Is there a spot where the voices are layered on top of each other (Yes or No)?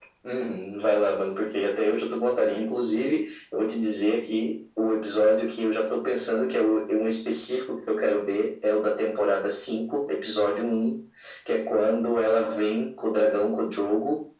No